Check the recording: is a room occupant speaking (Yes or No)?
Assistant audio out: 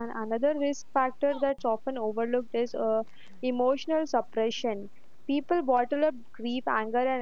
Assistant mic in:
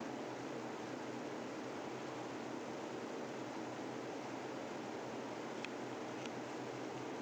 No